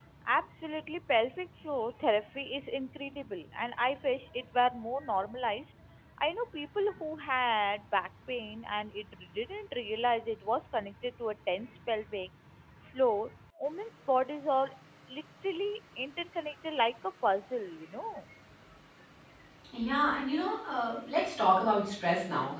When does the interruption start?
none

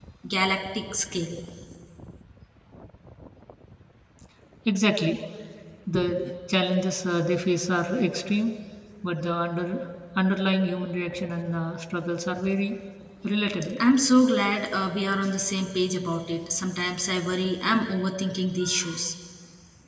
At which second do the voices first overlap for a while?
none

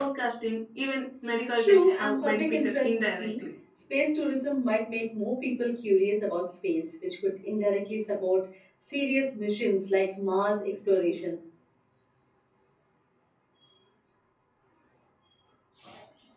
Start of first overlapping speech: 1.6 s

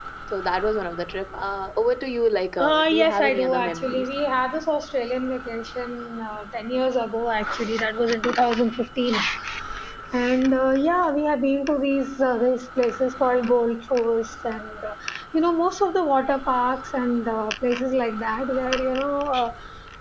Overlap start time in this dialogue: 2.6 s

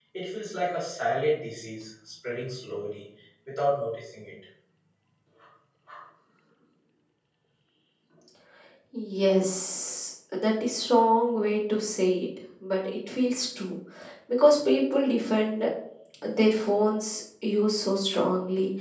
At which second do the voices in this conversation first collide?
none

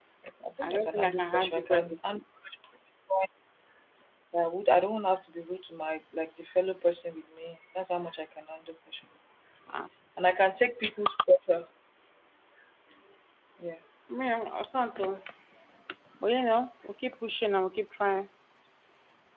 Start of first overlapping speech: 0.6 s

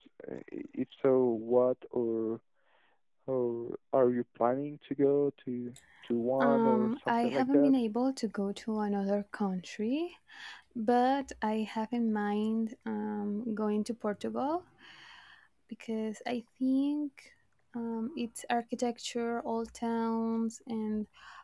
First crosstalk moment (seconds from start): 6.4 s

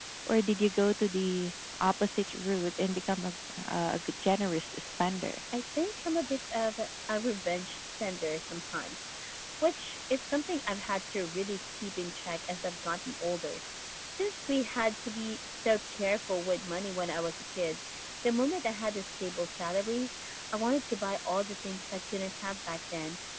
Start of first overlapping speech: none

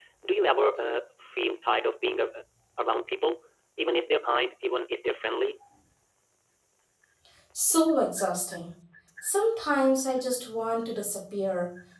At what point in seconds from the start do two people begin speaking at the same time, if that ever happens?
none

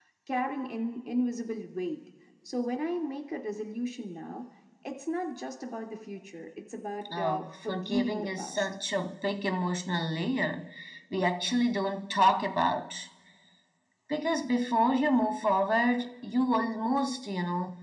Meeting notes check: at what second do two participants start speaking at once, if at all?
7.0 s

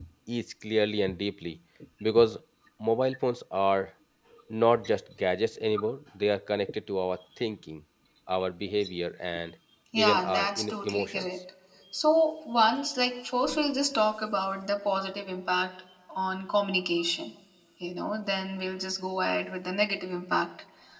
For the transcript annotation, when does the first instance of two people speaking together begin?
9.9 s

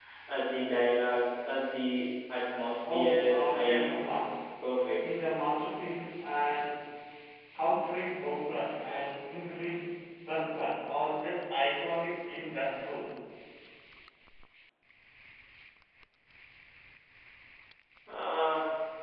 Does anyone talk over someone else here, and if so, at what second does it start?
2.8 s

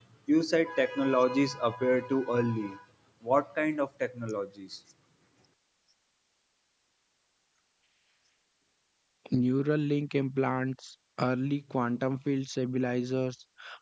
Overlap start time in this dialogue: none

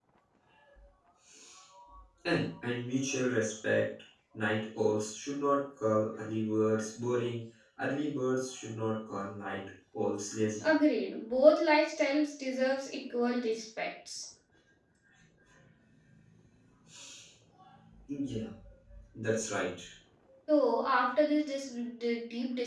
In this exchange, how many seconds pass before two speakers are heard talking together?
none

